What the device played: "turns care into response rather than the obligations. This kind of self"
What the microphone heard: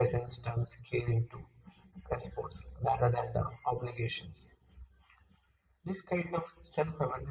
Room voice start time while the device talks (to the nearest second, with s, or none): none